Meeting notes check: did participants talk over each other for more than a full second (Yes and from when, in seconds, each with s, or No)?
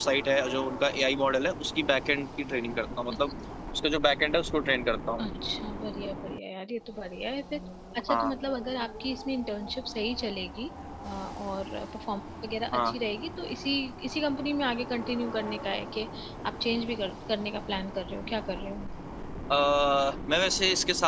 No